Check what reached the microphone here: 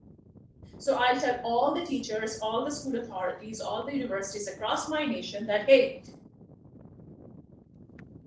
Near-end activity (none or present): present